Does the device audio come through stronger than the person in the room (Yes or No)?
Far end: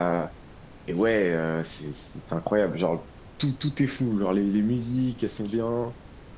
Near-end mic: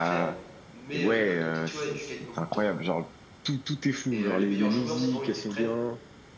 Yes